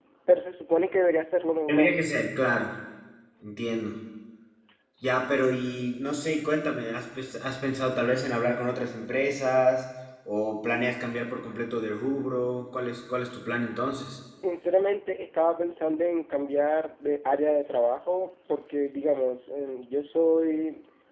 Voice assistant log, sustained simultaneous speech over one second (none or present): none